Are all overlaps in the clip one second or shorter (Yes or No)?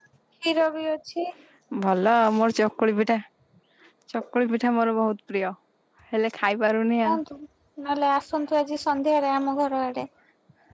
Yes